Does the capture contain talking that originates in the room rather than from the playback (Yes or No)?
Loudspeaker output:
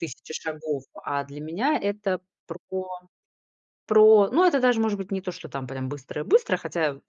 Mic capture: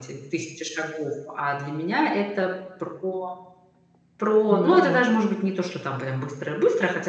Yes